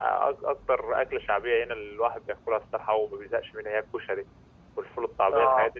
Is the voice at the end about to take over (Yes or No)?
No